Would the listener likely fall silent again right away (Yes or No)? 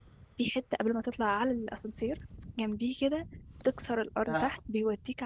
Yes